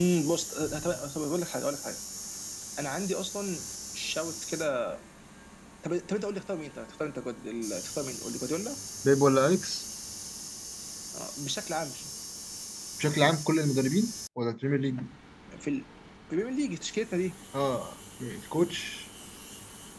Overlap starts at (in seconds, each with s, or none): none